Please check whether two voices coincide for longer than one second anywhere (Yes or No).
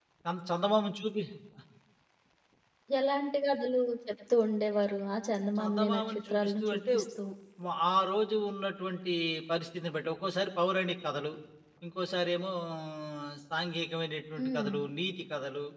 Yes